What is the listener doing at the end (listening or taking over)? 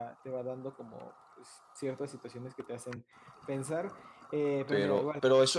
taking over